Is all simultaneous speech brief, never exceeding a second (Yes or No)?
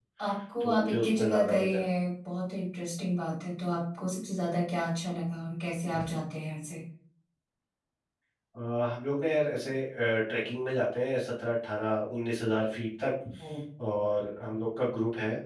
No